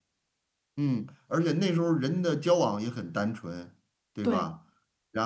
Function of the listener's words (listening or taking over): listening